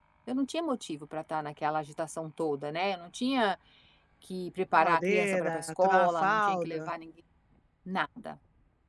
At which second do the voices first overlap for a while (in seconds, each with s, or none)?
4.7 s